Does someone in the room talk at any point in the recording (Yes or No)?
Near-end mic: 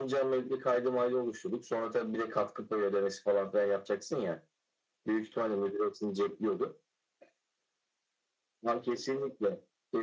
No